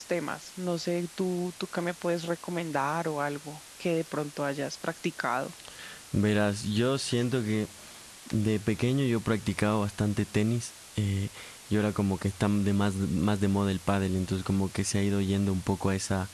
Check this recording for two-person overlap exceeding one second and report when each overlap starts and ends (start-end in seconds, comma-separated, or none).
none